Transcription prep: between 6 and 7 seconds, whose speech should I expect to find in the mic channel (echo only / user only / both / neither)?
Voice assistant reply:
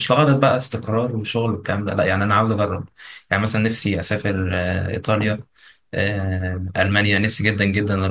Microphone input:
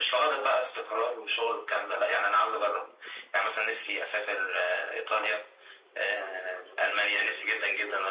echo only